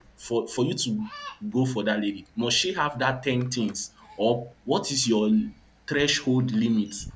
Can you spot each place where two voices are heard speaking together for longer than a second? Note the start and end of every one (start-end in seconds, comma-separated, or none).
none